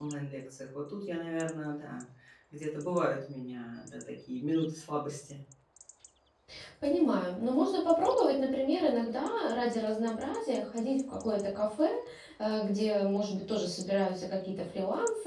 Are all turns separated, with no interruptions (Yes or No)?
Yes